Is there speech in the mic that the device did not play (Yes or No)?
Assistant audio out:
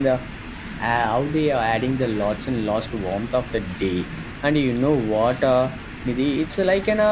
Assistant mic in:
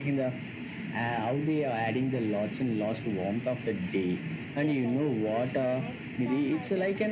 Yes